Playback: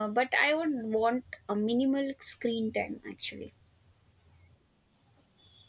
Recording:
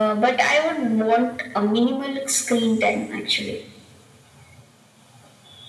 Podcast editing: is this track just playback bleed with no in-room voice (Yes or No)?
Yes